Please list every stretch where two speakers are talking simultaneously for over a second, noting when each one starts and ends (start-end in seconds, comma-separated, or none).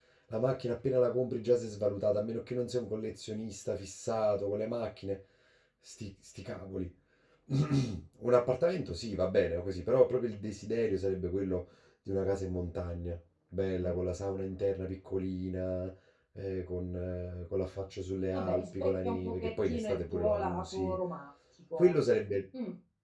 18.3-21.0